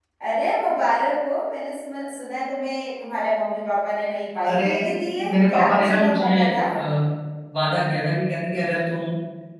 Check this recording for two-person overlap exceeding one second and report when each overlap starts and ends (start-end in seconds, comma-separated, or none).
5.3-6.6